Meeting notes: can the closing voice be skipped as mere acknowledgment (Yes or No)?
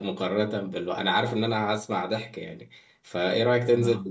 Yes